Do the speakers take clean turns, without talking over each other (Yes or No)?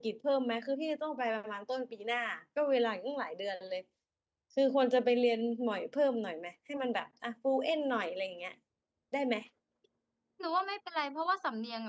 Yes